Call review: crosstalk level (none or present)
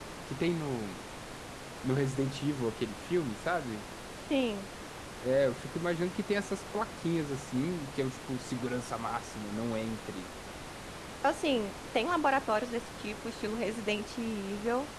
none